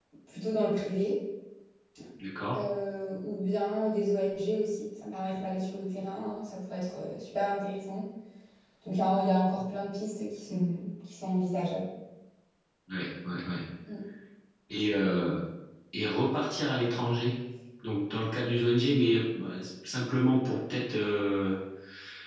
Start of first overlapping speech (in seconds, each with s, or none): none